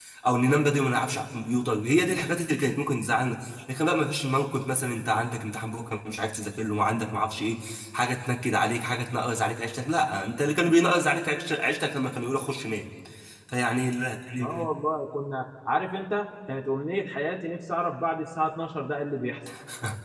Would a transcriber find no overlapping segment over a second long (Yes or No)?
Yes